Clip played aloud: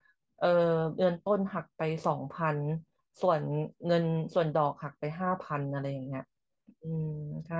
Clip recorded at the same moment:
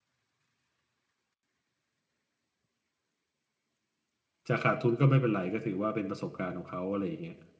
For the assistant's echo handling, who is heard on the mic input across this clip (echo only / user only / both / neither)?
user only